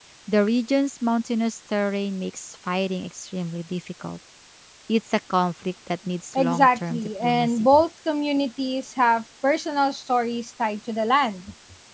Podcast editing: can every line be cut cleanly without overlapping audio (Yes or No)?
No